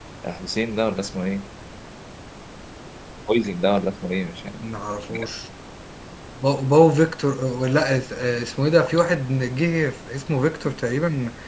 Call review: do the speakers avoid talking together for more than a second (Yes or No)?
Yes